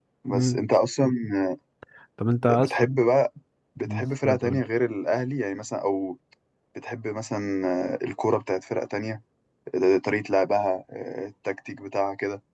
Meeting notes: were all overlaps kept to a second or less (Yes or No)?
Yes